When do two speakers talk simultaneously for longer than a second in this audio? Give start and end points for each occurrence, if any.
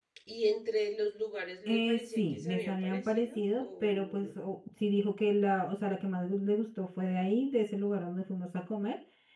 1.7-4.3

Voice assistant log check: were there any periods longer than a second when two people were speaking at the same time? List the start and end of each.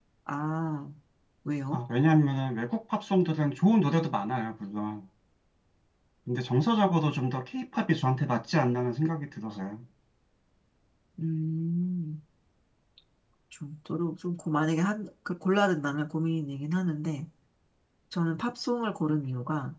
none

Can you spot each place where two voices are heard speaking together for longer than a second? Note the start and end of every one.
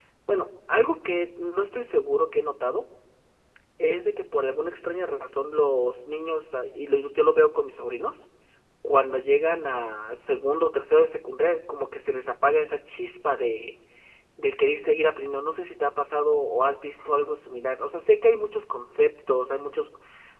none

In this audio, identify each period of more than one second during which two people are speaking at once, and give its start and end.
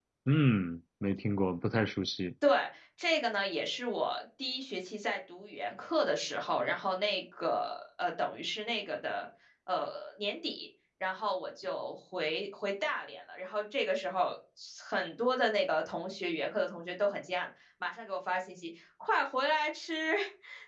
none

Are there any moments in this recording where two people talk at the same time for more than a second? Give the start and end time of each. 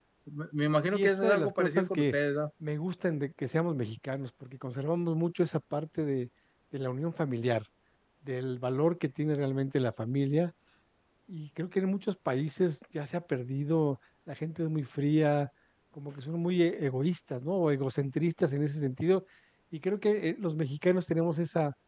0.9-2.1

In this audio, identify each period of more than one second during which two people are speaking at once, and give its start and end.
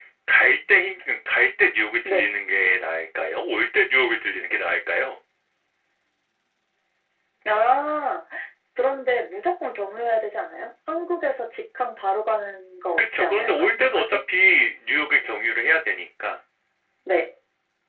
13.0-14.2

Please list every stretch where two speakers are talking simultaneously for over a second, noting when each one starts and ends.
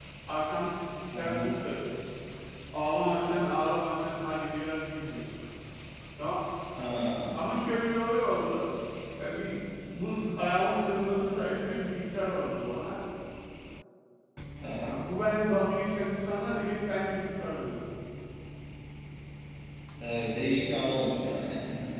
none

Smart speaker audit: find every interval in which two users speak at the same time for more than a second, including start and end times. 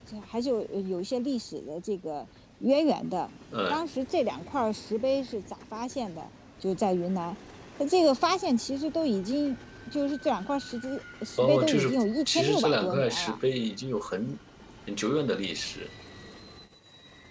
11.4-13.4

